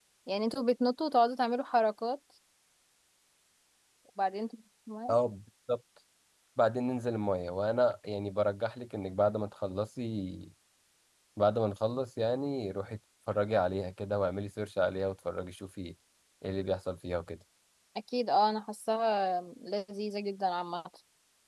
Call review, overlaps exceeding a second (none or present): none